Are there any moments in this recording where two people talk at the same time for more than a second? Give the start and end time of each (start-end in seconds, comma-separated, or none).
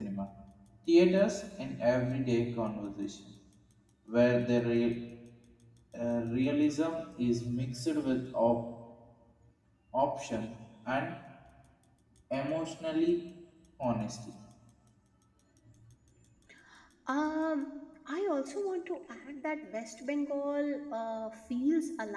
none